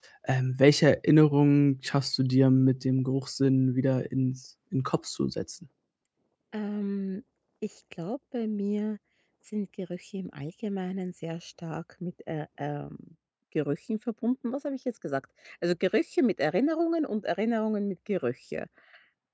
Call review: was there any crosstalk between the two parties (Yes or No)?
No